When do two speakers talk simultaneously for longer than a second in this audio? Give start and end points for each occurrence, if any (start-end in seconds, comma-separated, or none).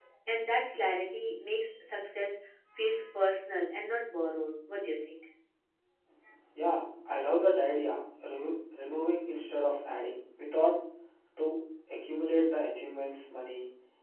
none